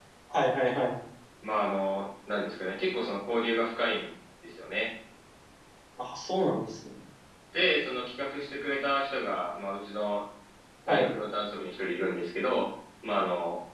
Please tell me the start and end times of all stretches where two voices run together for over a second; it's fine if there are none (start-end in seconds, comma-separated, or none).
none